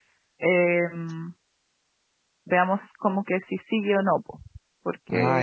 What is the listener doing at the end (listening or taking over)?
listening